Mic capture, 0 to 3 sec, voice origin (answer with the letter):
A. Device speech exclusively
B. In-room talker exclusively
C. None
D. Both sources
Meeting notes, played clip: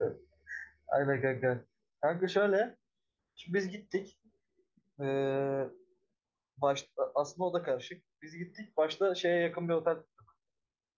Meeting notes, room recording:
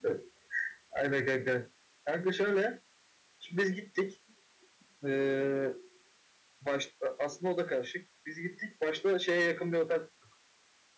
A